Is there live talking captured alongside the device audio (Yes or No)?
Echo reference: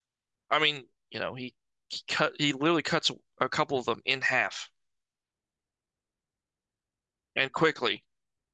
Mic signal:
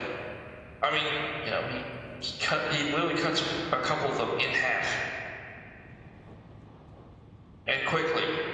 No